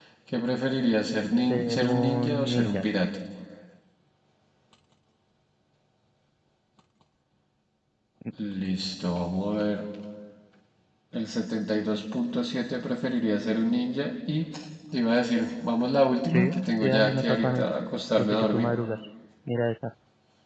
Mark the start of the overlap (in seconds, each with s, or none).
1.4 s